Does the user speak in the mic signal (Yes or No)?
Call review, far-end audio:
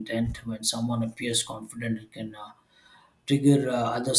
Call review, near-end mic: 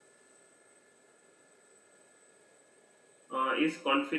Yes